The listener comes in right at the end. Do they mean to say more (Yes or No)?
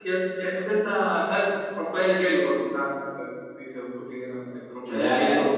No